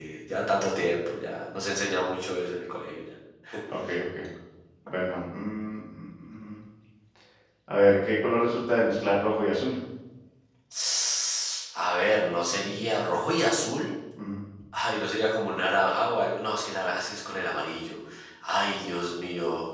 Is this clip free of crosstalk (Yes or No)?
Yes